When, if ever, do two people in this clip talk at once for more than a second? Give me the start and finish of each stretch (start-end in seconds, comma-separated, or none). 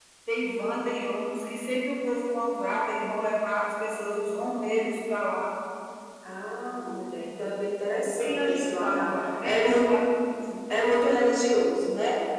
7.9-9.9